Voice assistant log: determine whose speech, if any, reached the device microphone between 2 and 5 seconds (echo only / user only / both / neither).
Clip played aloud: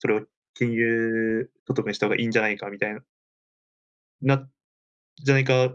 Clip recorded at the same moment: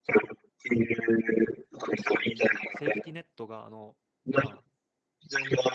both